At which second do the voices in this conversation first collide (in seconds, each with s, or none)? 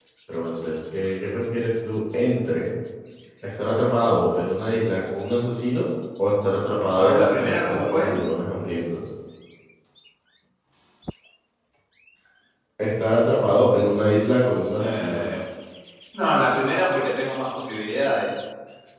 6.9 s